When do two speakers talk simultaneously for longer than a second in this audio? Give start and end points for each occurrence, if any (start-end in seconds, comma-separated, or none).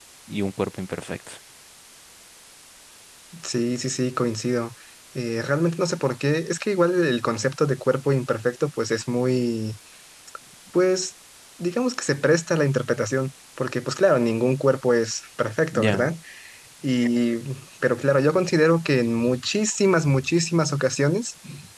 none